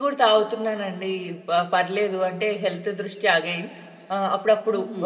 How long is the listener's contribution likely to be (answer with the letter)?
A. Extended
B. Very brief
B